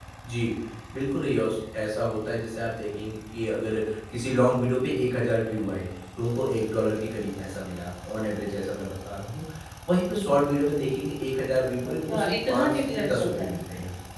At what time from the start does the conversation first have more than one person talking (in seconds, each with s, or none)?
12.1 s